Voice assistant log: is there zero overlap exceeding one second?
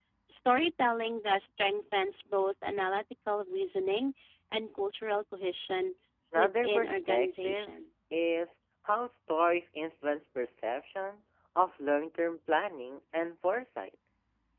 No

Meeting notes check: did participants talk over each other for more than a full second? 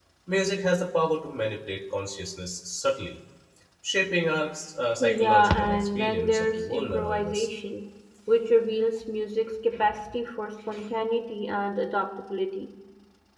Yes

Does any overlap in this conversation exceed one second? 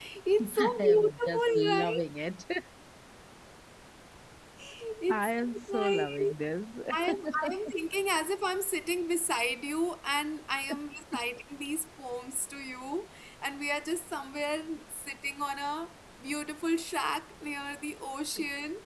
Yes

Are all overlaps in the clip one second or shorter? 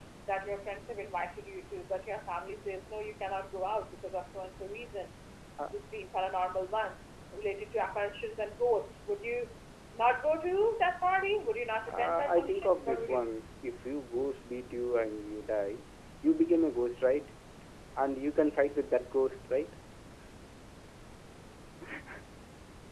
No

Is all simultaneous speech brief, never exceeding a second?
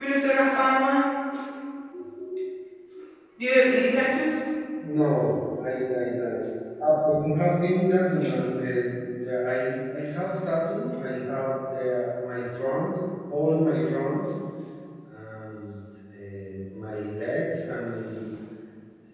Yes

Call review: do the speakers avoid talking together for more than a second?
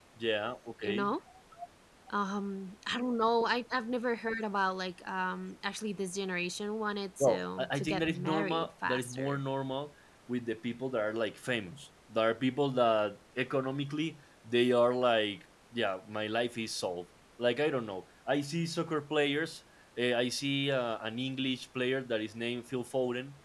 No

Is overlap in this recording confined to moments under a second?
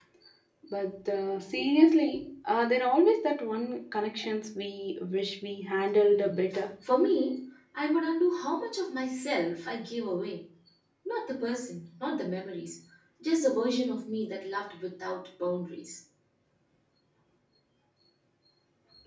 Yes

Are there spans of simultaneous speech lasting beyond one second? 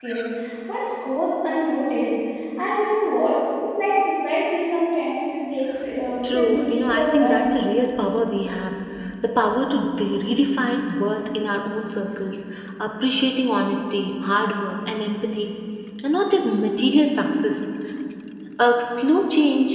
Yes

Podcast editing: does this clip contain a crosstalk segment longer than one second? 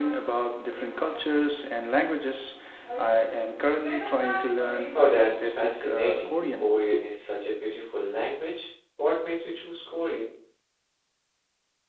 Yes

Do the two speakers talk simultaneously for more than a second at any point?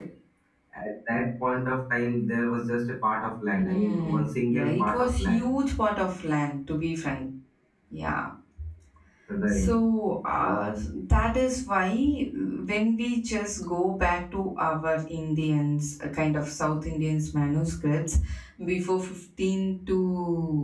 Yes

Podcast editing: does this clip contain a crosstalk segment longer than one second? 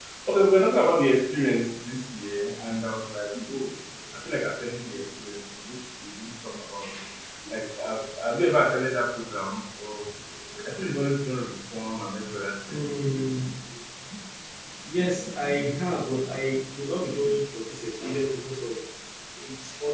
No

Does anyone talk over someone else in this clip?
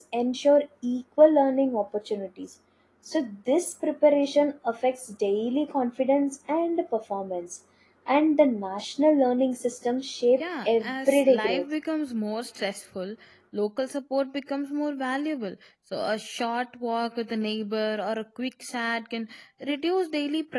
Yes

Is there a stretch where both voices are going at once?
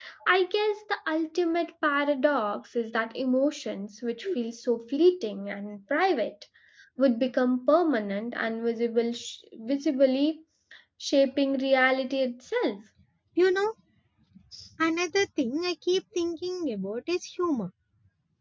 No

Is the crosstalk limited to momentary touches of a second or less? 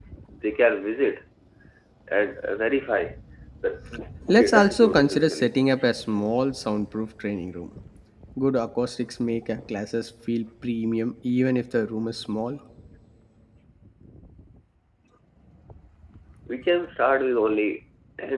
No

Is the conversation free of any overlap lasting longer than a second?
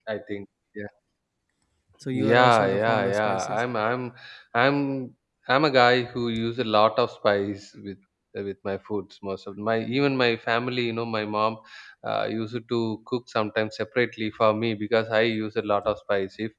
No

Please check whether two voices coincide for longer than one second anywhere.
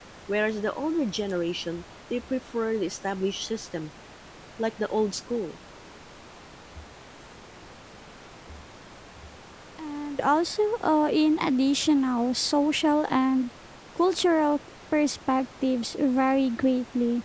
No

